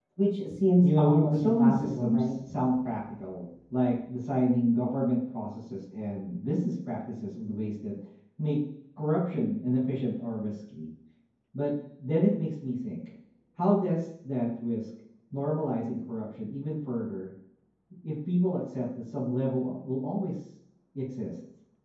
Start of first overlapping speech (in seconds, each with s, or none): 0.8 s